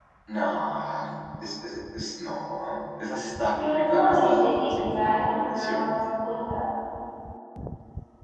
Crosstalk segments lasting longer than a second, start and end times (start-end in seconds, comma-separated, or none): 3.5-5.9